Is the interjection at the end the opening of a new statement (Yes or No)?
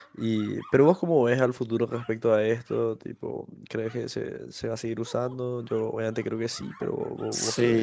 Yes